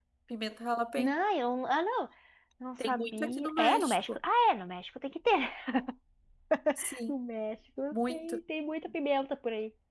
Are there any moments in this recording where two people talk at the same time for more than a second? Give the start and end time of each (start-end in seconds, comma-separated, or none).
2.9-4.2